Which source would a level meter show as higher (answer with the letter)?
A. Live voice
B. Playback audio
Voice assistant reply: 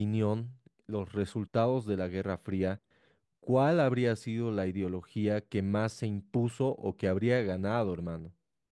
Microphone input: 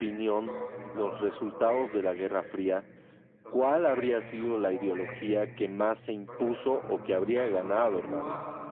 B